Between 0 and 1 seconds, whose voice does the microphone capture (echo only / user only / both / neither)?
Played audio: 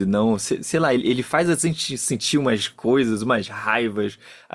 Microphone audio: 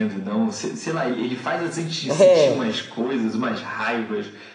echo only